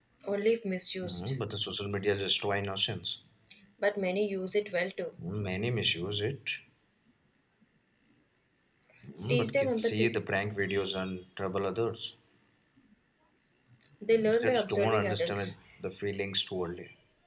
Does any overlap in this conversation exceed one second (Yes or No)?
Yes